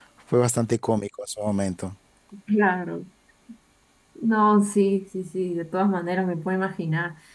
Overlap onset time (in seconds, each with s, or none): none